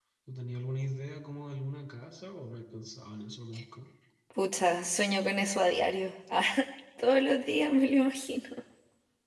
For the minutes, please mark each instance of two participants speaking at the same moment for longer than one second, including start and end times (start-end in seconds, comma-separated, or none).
none